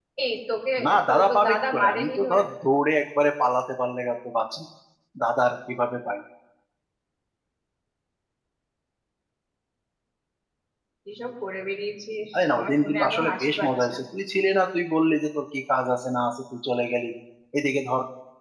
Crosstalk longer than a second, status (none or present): present